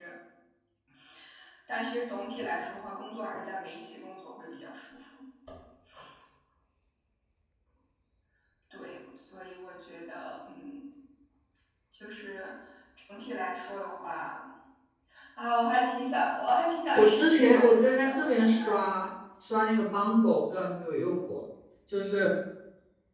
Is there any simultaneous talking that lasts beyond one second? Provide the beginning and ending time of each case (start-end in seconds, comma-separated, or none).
16.9-18.8